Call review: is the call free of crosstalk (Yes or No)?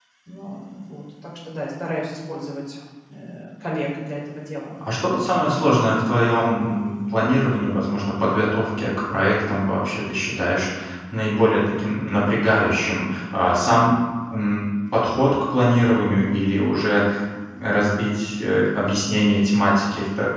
Yes